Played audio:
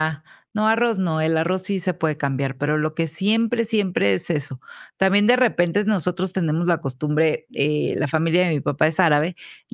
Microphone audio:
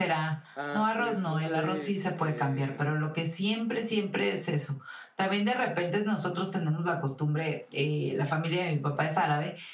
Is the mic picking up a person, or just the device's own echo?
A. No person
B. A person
B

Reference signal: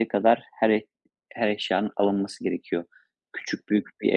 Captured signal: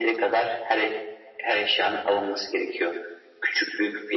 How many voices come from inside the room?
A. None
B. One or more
A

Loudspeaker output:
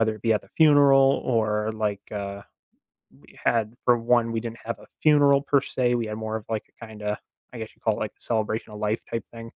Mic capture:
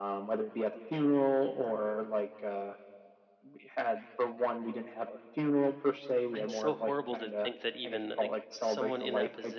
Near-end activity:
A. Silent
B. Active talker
B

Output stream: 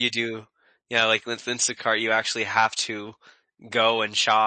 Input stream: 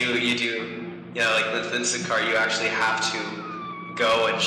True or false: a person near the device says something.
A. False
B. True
A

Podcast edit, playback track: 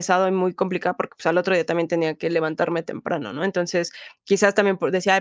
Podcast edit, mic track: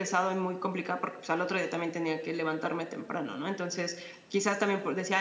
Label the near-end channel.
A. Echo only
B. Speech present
A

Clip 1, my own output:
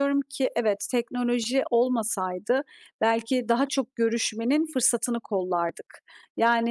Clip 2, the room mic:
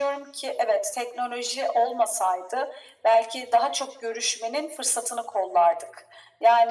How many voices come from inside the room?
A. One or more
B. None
B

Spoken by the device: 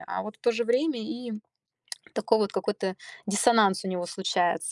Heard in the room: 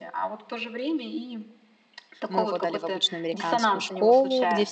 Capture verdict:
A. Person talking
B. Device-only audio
A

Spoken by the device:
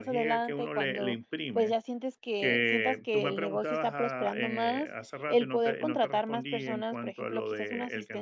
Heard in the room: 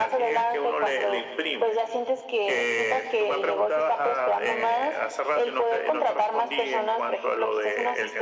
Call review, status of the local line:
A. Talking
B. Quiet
B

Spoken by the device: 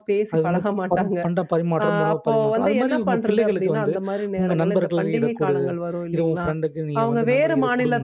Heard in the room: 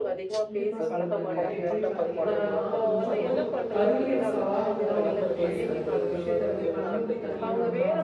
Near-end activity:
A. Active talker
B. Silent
A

